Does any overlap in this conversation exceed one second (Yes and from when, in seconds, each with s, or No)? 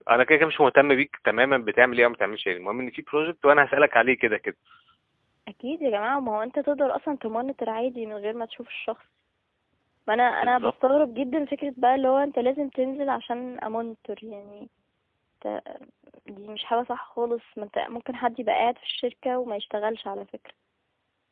No